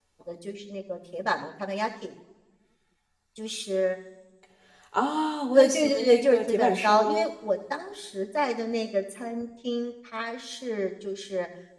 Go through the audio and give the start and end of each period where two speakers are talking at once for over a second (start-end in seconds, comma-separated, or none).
5.5-7.3